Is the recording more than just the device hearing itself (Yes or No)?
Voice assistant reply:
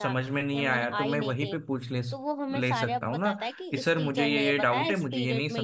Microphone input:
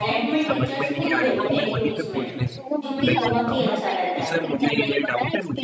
Yes